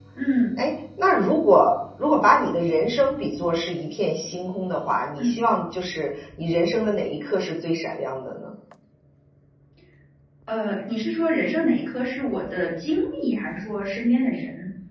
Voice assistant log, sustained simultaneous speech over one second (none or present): none